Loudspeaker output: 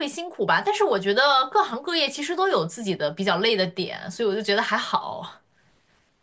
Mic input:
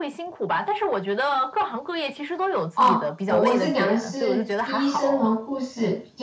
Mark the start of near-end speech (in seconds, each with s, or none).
2.7 s